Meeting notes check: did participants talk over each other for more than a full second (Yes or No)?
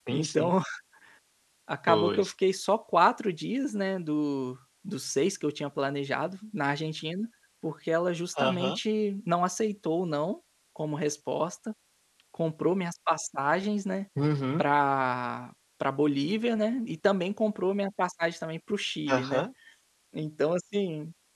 No